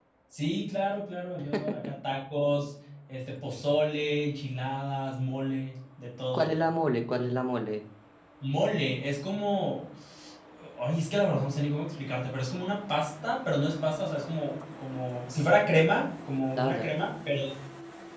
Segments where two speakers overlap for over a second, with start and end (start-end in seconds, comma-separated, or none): none